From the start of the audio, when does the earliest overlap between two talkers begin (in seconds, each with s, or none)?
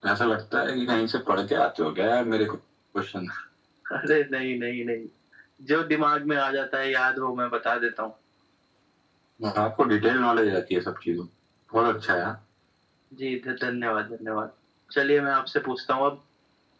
none